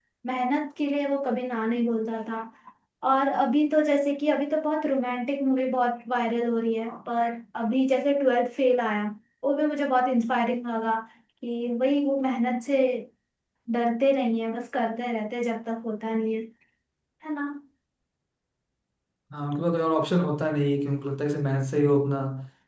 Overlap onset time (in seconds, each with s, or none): none